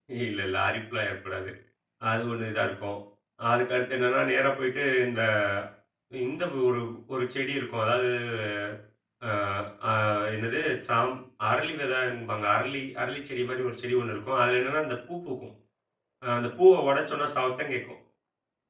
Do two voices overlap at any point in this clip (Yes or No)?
No